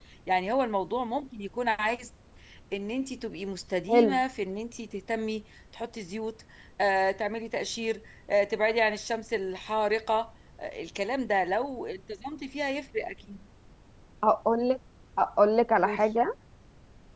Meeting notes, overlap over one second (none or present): none